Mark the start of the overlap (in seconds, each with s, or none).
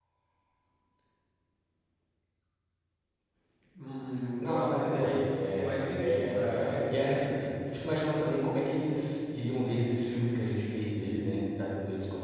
4.4 s